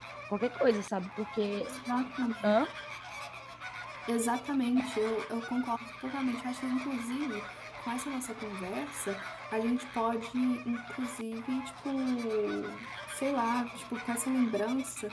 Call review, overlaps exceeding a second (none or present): none